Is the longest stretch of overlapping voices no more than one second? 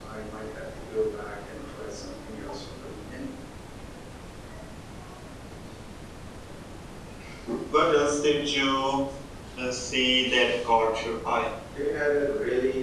Yes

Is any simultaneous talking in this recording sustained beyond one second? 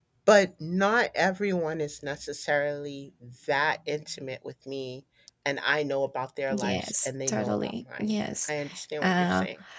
Yes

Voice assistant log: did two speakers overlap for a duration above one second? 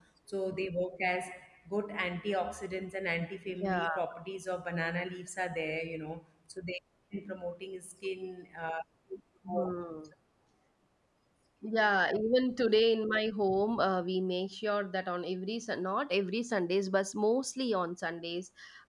No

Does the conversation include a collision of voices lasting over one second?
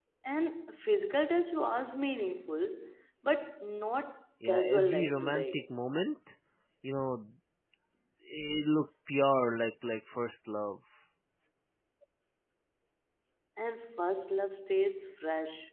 Yes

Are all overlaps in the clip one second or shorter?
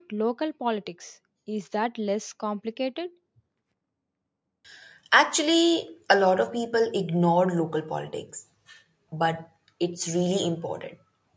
Yes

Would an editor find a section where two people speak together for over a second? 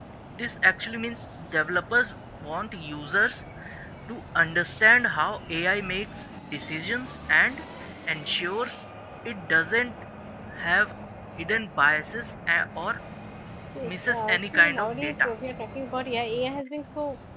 Yes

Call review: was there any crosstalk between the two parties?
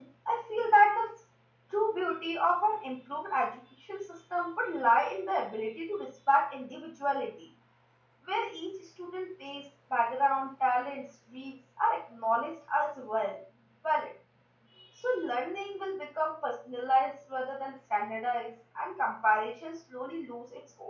No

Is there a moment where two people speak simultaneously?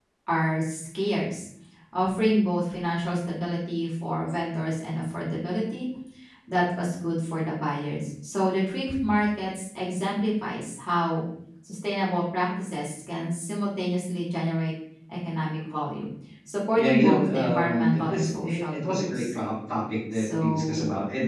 Yes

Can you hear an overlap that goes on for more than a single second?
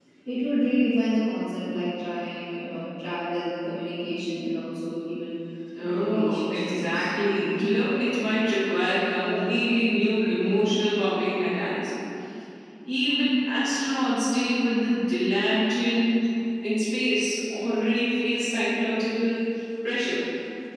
Yes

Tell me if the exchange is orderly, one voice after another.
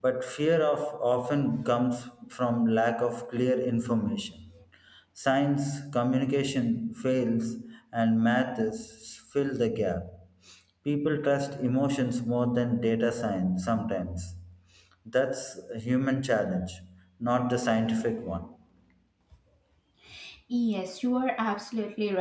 Yes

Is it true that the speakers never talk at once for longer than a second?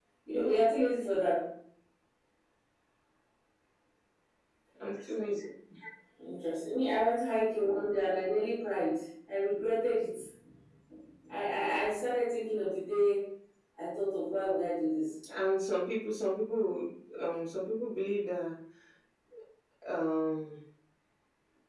Yes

